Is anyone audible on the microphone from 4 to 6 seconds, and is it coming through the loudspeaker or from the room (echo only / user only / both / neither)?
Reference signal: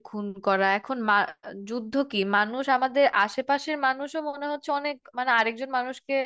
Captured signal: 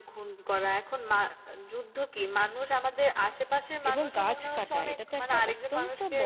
both